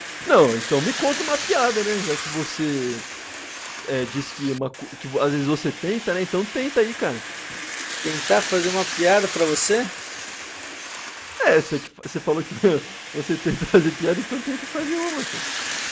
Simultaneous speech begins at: none

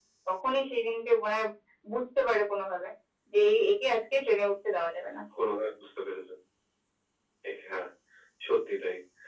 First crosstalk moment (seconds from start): none

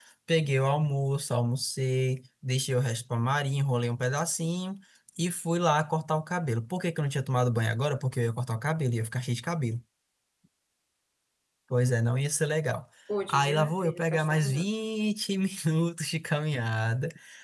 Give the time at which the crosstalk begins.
13.3 s

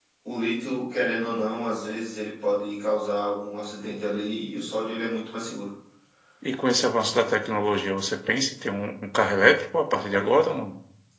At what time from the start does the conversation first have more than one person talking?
none

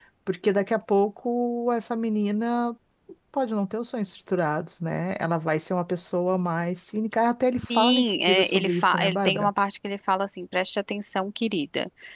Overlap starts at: 7.6 s

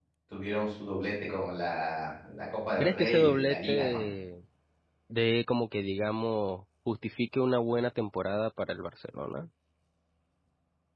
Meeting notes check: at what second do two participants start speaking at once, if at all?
2.8 s

